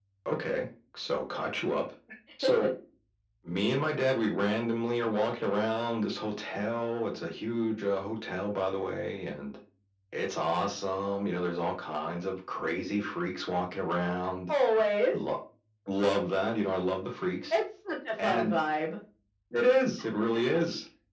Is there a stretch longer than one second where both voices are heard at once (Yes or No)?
No